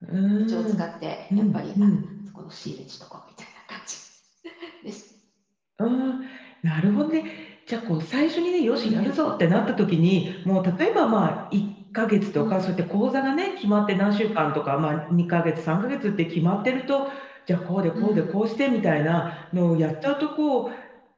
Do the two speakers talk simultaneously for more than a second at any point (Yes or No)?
No